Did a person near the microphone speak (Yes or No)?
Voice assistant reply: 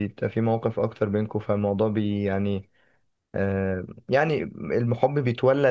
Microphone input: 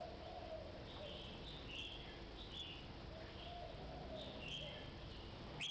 No